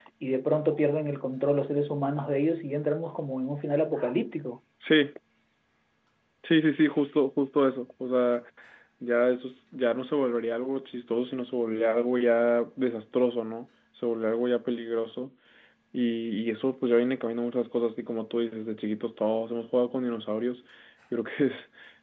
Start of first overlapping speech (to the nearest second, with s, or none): none